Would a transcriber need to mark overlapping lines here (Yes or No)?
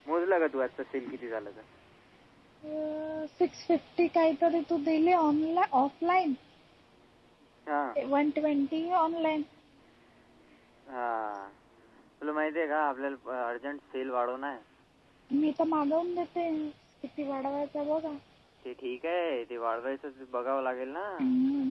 No